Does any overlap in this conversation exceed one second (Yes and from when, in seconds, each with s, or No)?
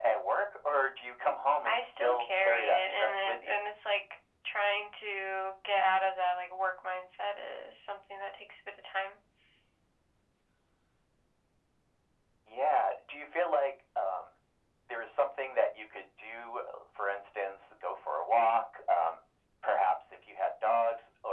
Yes, from 1.6 s